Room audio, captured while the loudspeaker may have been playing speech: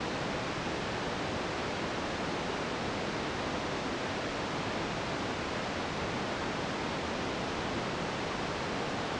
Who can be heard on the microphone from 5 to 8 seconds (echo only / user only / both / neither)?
neither